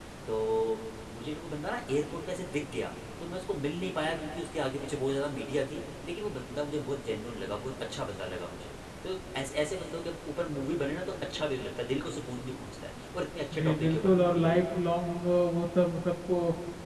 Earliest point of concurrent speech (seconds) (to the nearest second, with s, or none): 14 s